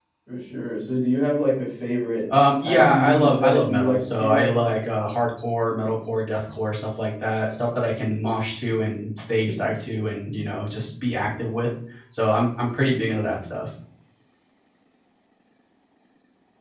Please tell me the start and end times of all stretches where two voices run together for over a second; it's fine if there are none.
2.6-4.6

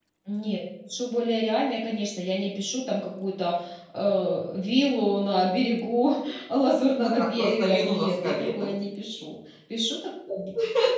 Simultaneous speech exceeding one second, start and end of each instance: 7.0-8.7

